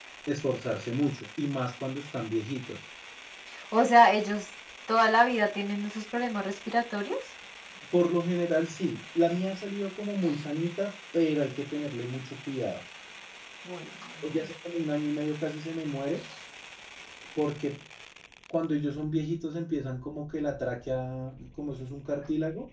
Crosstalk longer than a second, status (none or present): none